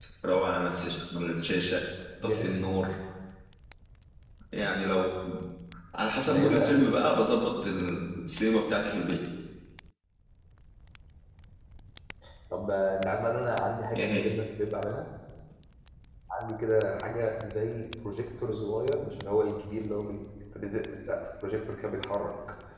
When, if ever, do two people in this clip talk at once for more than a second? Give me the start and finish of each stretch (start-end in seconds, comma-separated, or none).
none